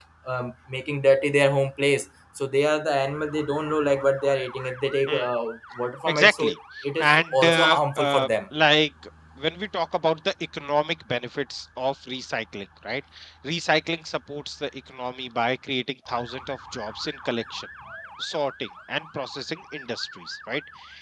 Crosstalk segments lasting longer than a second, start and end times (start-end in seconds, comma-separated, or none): 7.0-8.3